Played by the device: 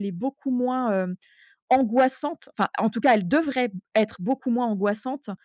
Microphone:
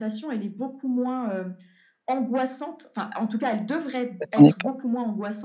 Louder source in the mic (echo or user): user